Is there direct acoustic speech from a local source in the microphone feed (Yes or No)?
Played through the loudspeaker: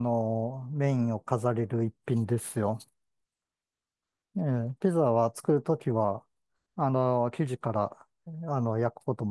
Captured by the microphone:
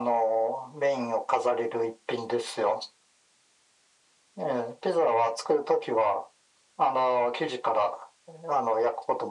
No